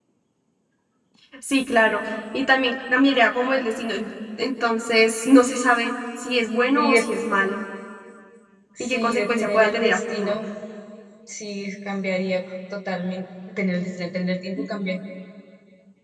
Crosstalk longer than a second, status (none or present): present